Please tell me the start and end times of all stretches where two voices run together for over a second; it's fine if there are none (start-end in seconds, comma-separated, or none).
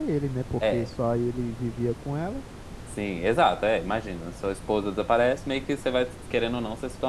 none